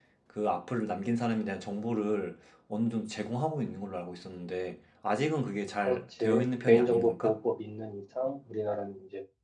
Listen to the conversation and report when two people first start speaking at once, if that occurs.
5.8 s

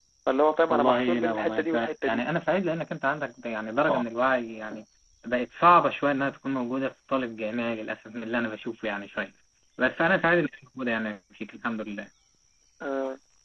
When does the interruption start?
0.7 s

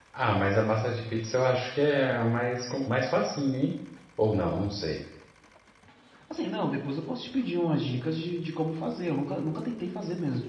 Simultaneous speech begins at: none

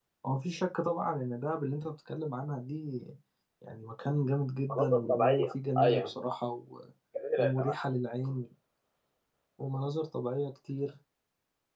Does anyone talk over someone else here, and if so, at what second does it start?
4.7 s

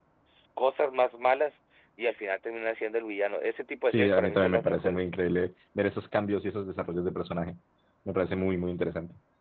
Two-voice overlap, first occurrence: 3.9 s

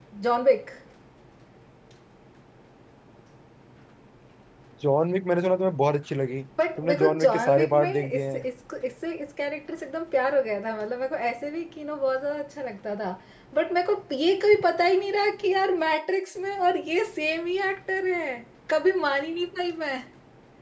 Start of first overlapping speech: 6.6 s

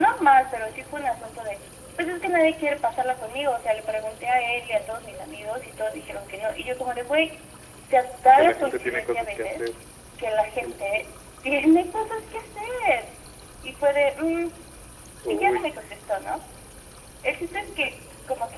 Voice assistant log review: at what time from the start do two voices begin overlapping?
8.3 s

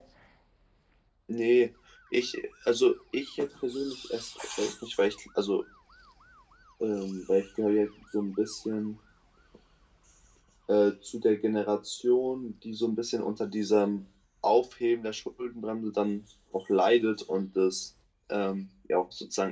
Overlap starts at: none

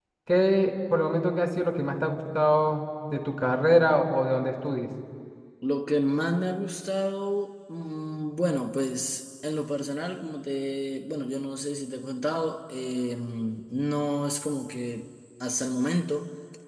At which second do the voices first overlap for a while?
none

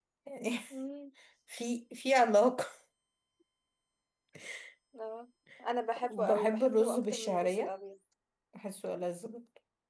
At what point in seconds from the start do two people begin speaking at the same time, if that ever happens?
6.0 s

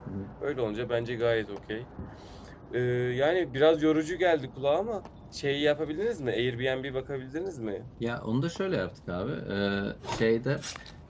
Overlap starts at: none

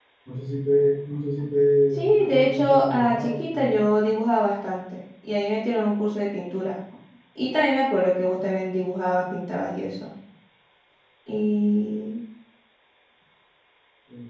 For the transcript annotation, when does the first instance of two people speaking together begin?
1.9 s

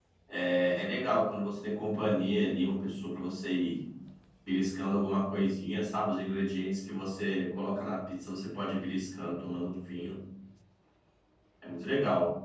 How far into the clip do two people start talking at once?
none

